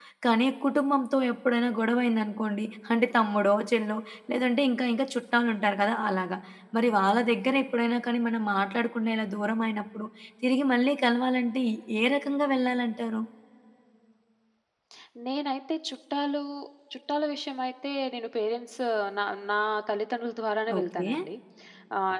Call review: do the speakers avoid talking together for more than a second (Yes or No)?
Yes